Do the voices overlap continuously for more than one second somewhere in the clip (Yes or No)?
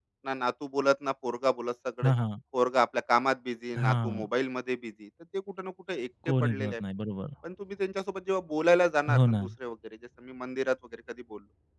No